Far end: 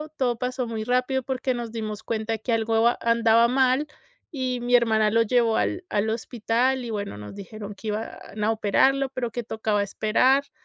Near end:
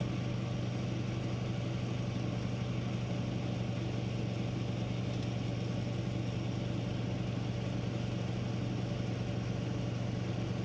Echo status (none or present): none